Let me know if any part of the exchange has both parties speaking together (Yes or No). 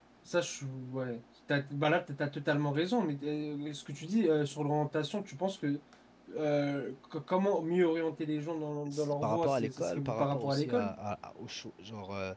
Yes